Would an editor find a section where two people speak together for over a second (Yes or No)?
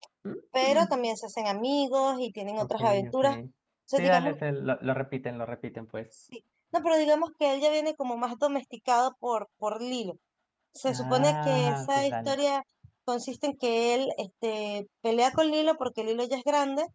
Yes